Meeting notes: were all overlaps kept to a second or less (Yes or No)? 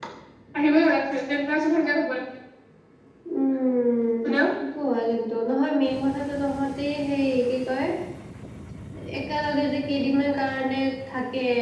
Yes